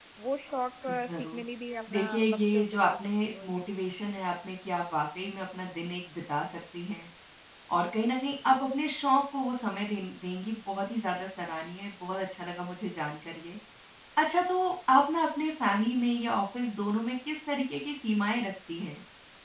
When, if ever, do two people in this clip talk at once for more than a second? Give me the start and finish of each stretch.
1.9-3.6

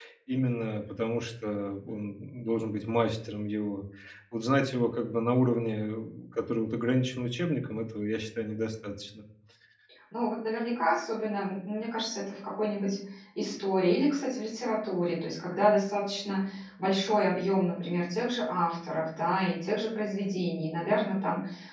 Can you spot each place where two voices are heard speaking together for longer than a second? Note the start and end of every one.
none

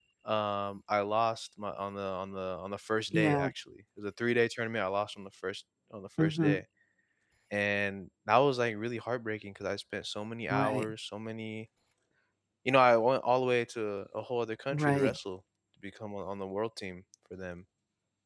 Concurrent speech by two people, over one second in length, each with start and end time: none

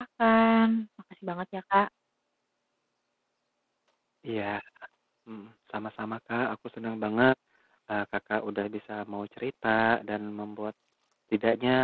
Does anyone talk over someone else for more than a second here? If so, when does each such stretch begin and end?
none

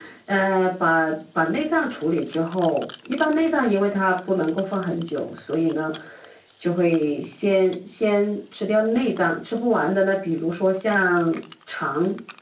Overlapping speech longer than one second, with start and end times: none

